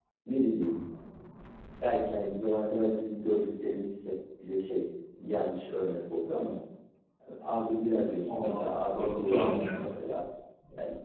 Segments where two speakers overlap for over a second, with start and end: 8.4-9.9

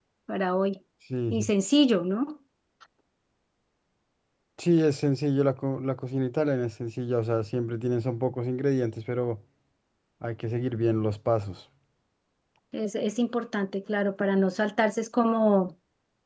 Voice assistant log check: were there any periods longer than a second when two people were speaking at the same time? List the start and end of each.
none

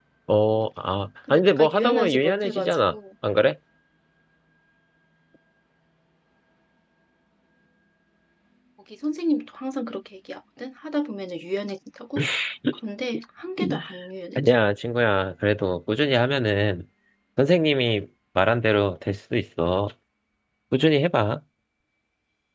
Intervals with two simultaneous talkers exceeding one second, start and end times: 1.3-2.9

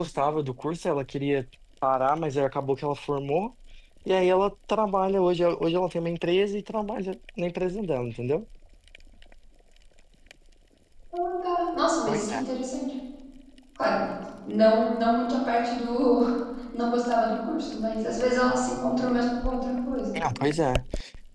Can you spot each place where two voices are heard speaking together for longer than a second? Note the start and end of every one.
none

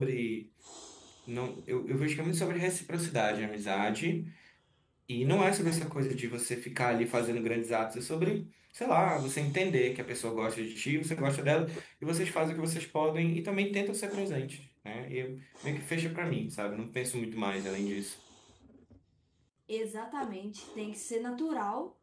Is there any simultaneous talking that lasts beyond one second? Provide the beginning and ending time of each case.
none

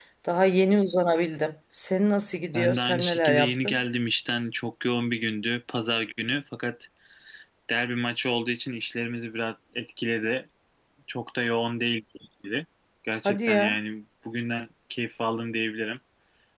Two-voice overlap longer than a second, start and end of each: 2.5-3.8

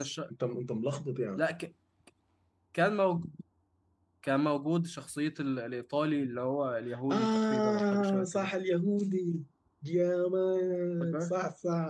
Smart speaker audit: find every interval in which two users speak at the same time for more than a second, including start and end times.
7.1-8.5

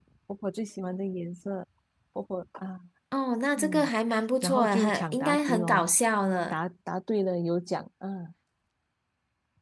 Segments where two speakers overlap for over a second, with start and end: 4.4-5.9

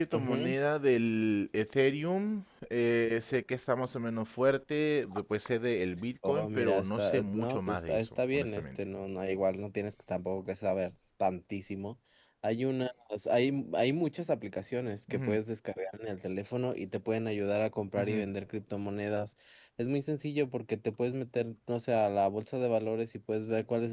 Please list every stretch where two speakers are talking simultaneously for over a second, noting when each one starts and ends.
6.3-8.8

